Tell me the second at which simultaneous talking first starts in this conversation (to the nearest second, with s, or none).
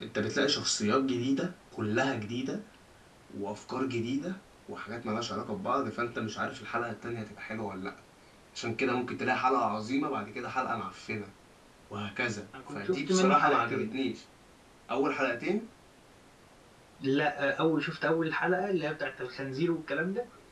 13 s